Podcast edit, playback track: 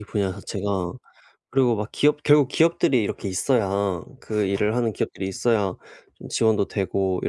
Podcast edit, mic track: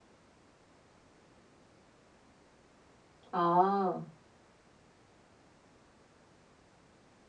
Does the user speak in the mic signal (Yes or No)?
Yes